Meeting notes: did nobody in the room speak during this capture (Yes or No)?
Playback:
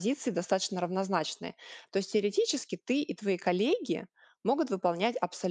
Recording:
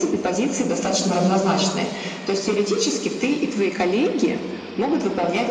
Yes